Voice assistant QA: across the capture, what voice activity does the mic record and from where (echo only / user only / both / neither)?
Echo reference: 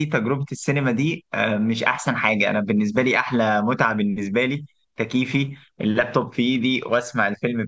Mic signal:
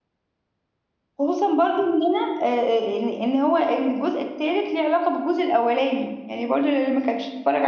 user only